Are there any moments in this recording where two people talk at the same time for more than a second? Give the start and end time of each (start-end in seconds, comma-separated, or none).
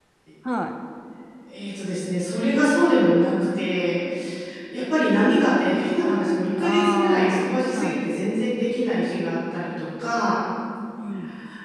6.6-8.0